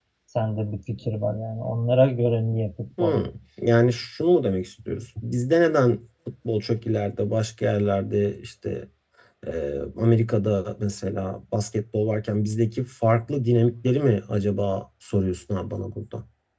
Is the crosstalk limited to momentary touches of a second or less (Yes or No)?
Yes